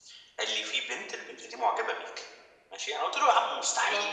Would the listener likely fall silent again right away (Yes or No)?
Yes